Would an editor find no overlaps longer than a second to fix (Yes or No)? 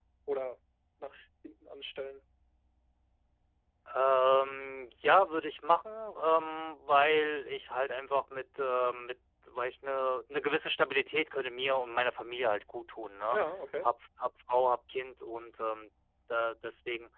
Yes